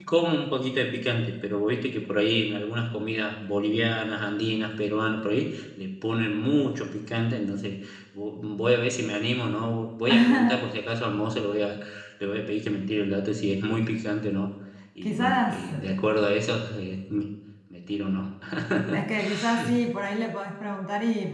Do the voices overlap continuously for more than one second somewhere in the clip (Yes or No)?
Yes